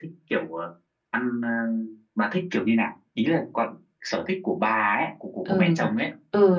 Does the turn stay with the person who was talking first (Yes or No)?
No